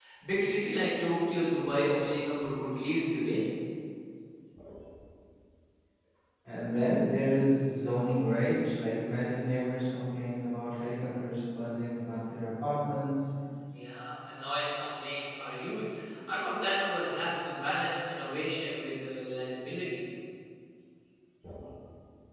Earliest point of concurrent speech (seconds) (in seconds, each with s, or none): none